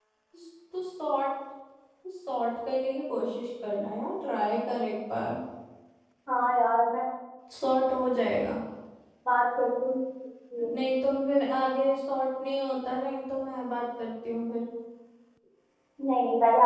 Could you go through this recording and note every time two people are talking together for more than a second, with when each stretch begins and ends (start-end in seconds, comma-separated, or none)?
none